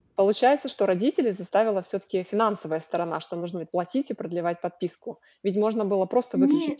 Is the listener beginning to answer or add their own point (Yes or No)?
No